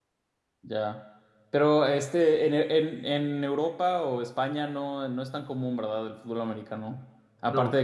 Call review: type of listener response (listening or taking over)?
listening